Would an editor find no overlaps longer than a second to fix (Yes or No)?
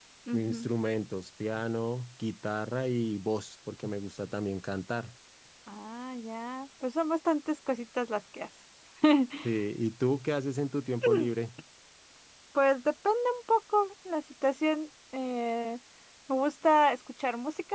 Yes